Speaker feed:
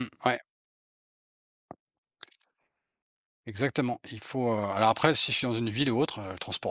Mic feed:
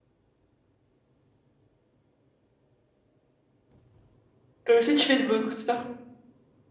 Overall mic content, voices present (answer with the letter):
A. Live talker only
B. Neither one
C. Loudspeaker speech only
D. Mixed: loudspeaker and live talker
A